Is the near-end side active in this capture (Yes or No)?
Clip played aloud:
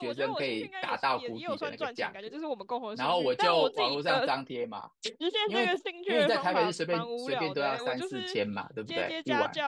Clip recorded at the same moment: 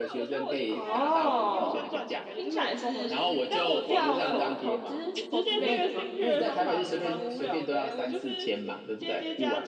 Yes